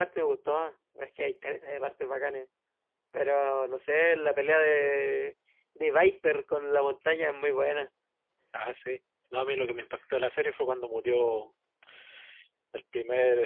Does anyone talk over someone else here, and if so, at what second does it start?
none

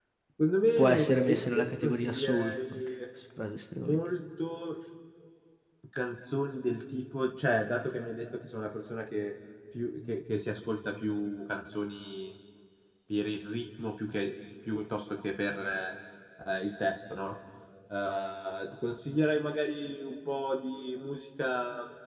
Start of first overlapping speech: 0.8 s

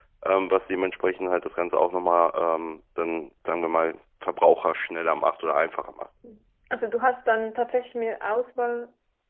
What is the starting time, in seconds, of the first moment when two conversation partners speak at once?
none

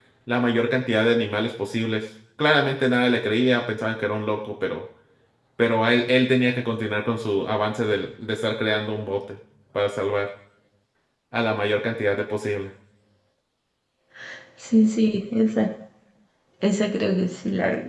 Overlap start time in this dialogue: none

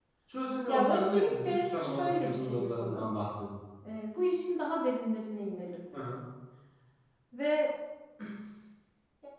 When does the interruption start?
0.7 s

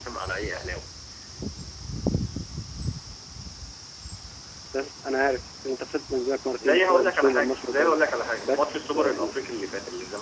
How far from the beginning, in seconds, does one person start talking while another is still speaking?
6.6 s

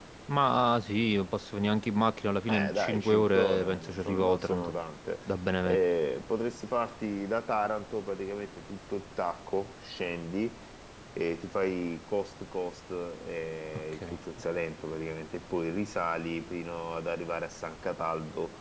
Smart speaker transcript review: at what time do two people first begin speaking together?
2.5 s

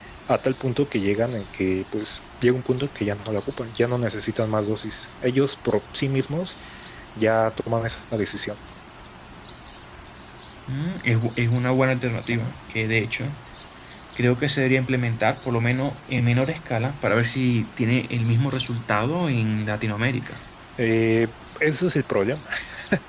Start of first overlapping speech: none

